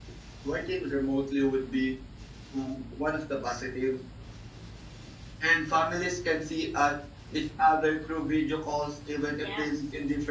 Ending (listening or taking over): listening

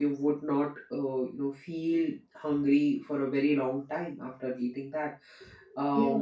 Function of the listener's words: taking over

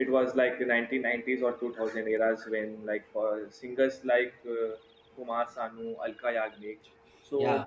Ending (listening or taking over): listening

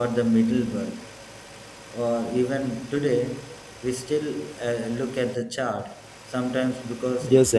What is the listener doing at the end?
taking over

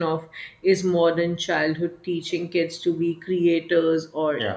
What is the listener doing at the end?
listening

